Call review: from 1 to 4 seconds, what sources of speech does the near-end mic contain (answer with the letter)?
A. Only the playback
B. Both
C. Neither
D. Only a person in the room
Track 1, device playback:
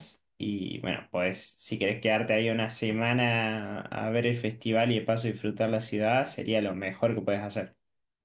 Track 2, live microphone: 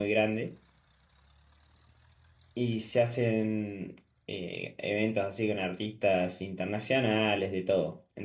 D